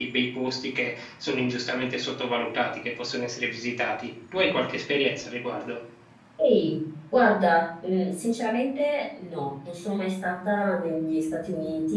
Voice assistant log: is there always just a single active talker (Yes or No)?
Yes